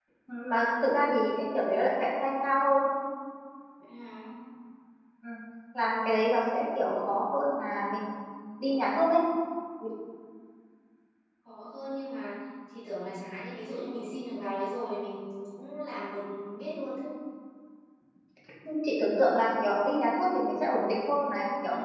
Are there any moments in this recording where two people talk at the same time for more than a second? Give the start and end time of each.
none

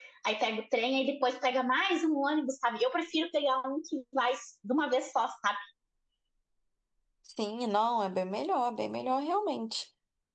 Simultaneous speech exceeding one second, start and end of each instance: none

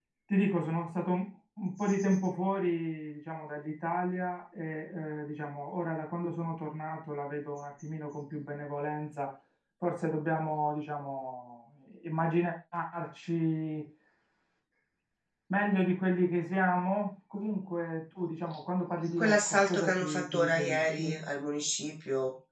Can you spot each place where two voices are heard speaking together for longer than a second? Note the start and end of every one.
19.2-21.1

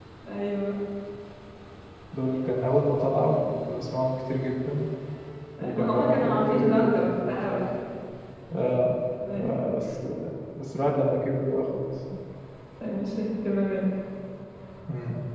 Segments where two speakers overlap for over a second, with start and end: 5.8-7.7

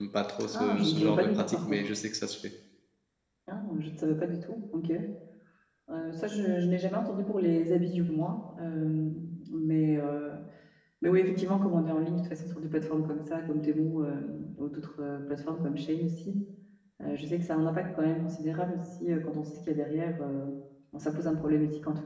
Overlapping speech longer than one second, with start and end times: 0.5-1.9

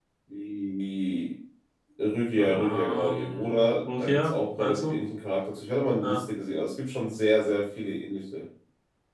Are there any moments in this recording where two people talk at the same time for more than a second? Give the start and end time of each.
2.4-4.9

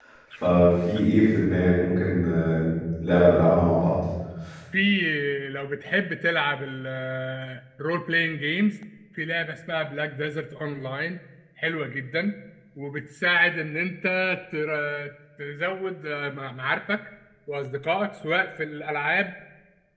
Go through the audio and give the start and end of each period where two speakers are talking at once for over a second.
none

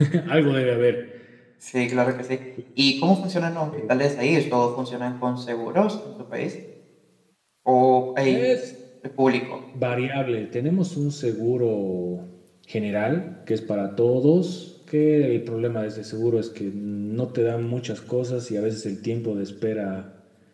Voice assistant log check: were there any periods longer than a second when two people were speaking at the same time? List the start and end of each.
none

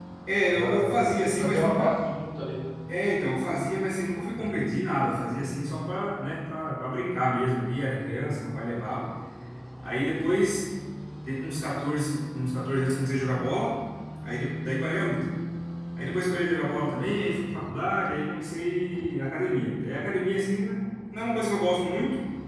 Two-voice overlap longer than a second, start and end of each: 0.5-2.0

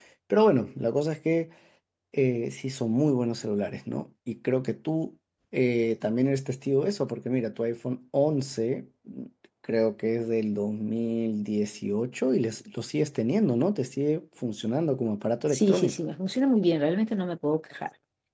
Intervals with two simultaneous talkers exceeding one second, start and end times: none

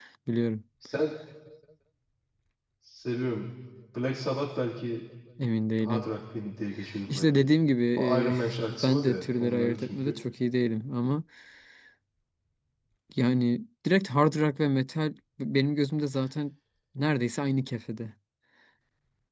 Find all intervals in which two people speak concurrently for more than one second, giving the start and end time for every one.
8.8-10.2

